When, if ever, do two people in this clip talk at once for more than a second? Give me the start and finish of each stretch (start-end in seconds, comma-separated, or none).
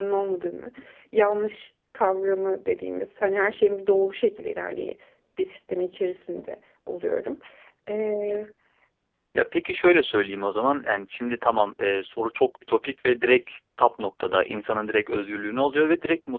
none